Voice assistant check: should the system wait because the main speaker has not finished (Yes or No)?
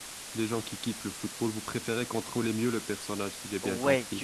No